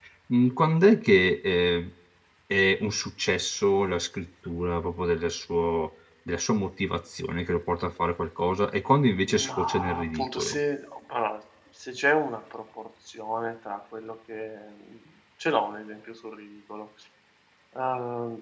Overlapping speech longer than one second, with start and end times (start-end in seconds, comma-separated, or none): 9.3-10.6